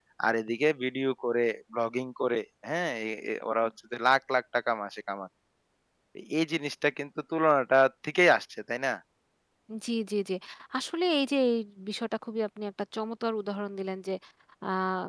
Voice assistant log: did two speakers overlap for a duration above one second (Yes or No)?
No